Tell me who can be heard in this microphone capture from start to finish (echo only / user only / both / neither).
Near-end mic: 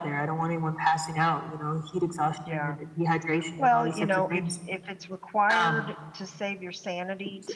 both